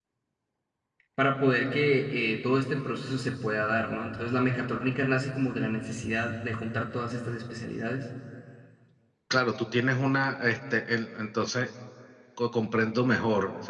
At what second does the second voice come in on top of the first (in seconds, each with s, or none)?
none